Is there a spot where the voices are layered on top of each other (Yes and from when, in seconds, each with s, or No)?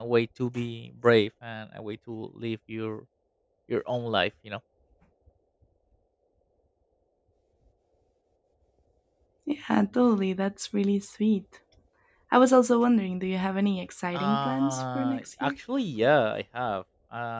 Yes, from 14.1 s